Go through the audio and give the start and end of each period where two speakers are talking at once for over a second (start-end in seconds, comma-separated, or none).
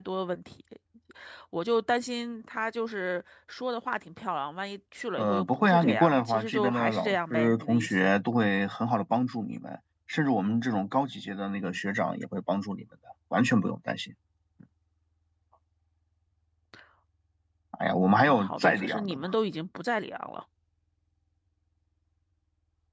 5.2-8.1, 18.0-19.3